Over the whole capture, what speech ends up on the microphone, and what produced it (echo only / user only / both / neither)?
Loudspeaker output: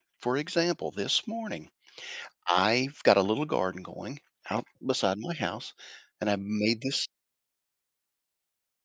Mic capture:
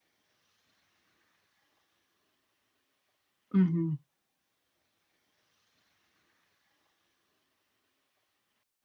user only